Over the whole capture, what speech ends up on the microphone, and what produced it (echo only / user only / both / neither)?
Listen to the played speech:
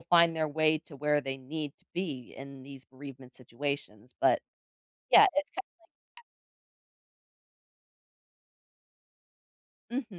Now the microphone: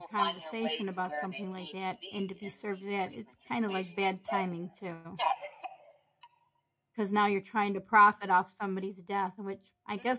both